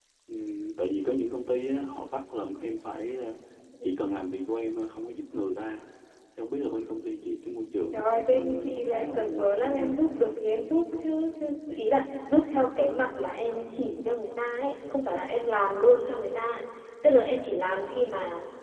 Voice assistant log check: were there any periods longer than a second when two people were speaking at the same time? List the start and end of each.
7.9-9.9

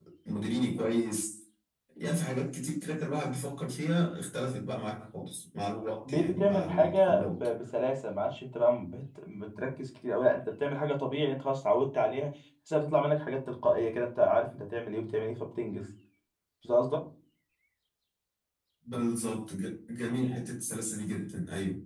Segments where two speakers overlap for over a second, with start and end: 6.0-7.5

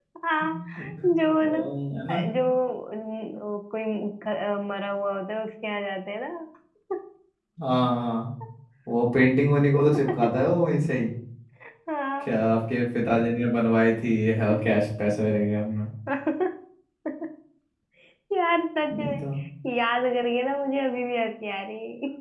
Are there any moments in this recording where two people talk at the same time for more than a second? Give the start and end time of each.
none

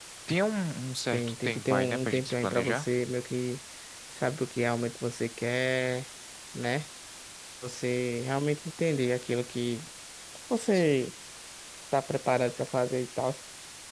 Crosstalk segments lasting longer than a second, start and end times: 1.1-2.8

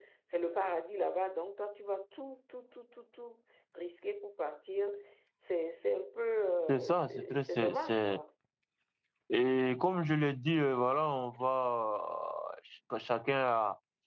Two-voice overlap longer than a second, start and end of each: 6.7-8.2

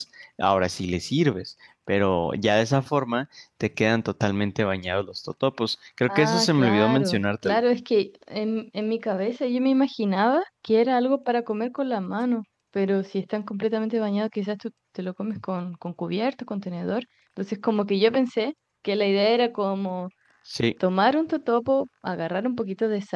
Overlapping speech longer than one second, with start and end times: 6.1-7.6

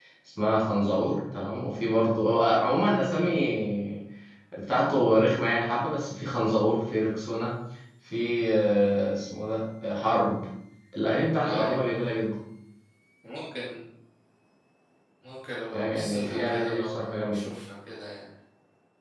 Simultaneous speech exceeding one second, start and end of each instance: 15.7-17.4

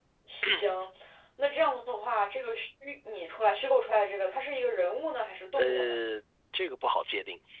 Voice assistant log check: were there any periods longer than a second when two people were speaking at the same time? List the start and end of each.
none

